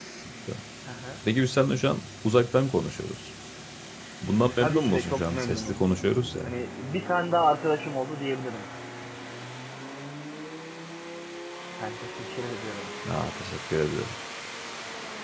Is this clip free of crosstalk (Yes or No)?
No